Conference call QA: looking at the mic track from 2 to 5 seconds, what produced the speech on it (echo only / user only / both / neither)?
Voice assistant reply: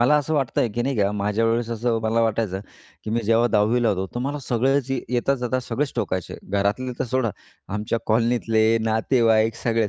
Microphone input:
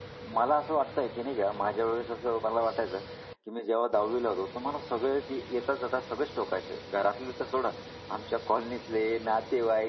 echo only